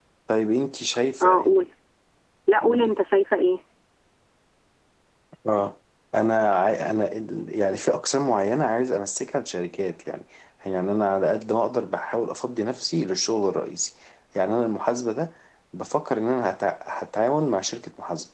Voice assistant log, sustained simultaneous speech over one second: none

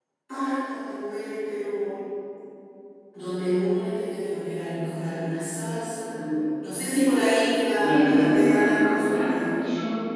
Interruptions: present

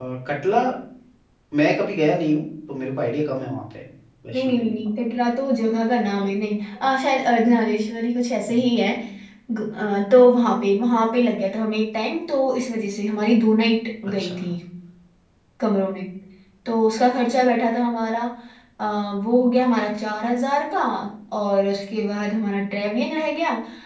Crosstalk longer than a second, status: none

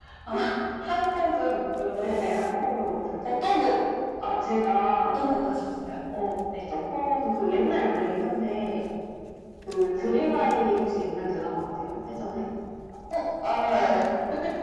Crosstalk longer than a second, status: none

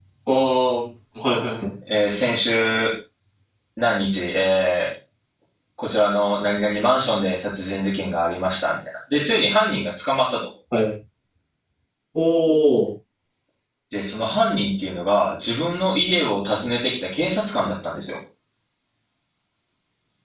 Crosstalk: none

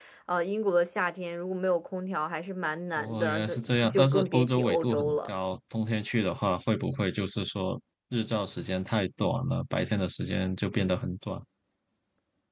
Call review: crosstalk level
present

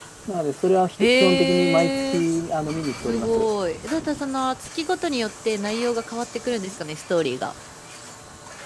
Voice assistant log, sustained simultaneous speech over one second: present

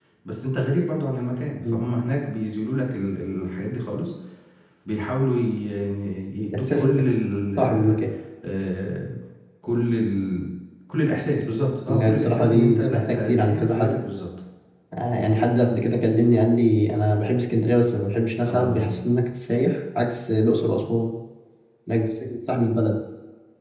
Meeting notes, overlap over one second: present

